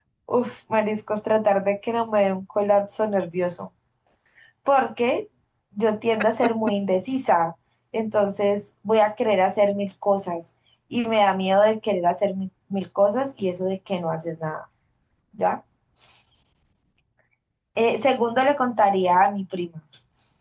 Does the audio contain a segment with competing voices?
No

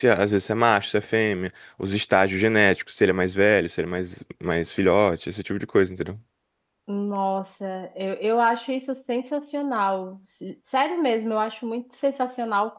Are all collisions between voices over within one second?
Yes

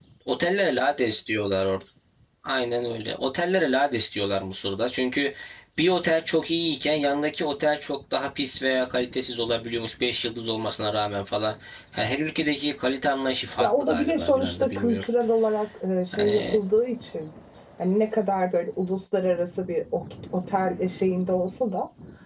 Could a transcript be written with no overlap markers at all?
No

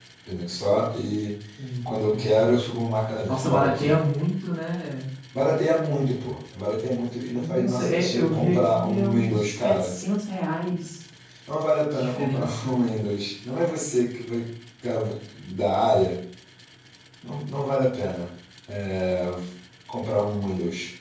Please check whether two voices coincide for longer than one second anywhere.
Yes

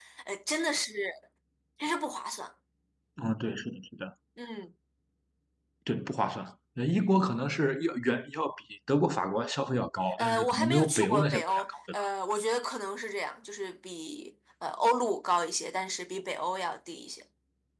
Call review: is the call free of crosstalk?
No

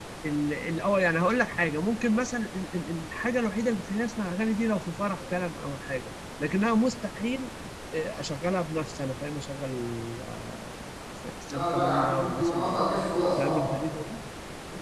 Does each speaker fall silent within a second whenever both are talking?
No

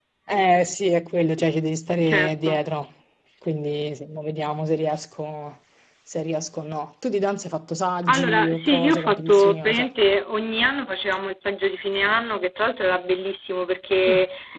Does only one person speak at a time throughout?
No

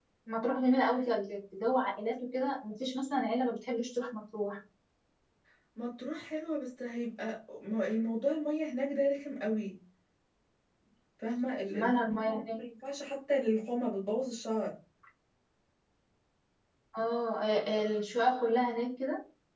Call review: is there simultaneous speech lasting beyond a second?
No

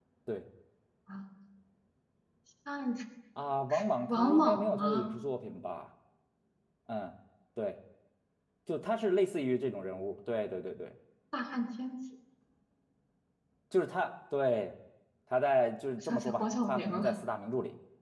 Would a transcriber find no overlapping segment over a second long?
No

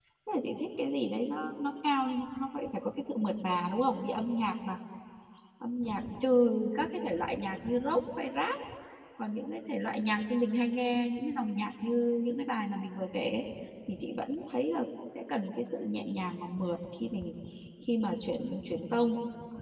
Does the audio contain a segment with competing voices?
No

